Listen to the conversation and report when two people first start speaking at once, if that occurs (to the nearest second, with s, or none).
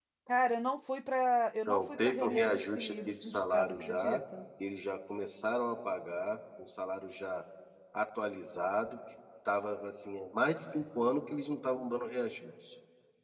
2 s